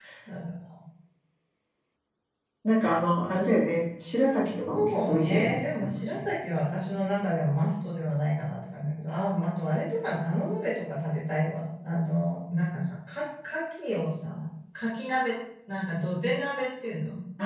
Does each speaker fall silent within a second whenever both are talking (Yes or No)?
No